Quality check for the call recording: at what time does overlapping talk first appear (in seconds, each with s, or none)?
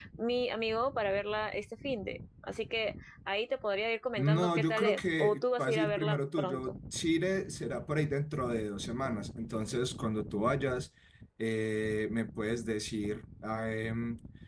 4.2 s